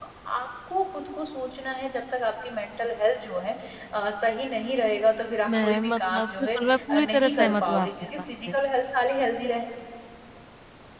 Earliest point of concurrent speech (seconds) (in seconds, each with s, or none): 5.5 s